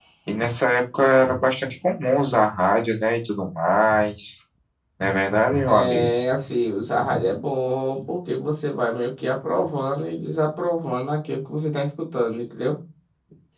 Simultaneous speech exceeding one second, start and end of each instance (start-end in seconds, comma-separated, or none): none